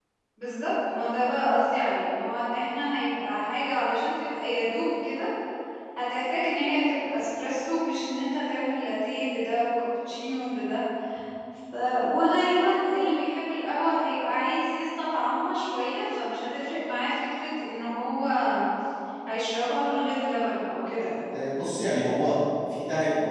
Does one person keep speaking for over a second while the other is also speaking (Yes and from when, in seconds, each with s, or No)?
No